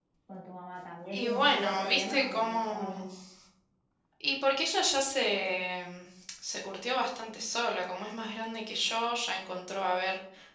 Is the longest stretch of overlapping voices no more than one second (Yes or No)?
No